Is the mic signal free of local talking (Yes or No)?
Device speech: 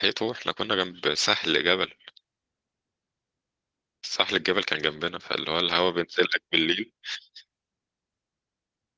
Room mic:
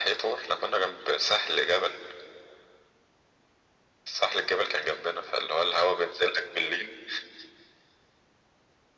Yes